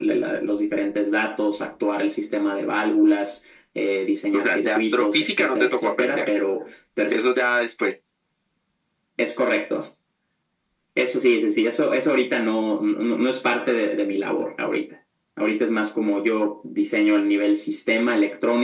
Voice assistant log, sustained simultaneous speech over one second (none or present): present